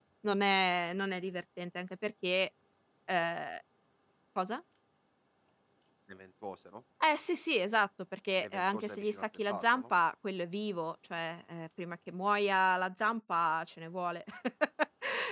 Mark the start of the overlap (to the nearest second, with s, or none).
8 s